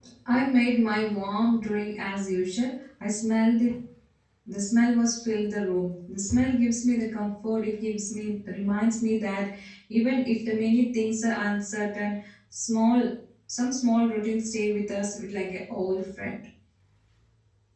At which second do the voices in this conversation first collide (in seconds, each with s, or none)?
none